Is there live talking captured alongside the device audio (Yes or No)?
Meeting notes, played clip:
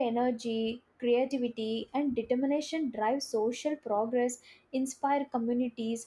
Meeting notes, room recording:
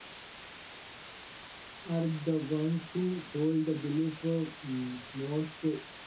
Yes